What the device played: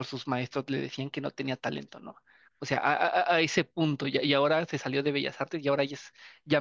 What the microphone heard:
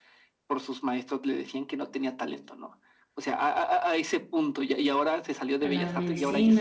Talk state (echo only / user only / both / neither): both